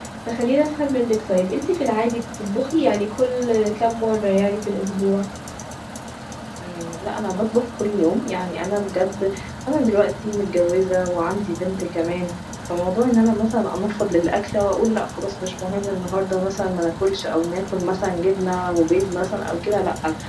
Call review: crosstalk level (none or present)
none